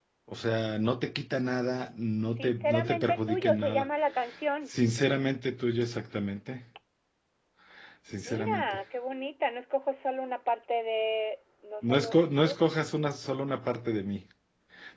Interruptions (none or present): present